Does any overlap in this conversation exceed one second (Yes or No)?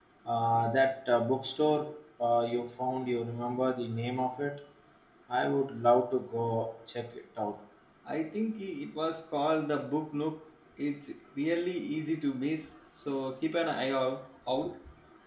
No